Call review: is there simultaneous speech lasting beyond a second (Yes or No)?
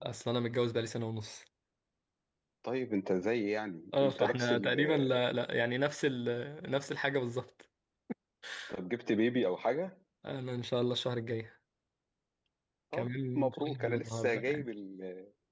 Yes